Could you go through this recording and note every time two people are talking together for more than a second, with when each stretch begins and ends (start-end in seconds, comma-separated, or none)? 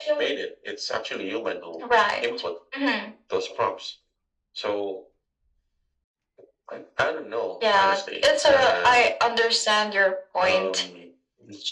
7.6-9.1